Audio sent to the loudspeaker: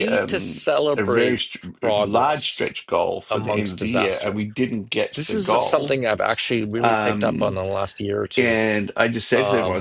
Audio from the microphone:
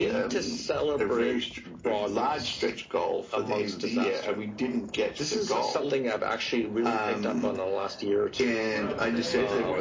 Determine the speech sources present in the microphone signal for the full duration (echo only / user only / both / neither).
both